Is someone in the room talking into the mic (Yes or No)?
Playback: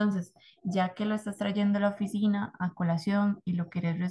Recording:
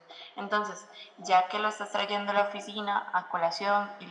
No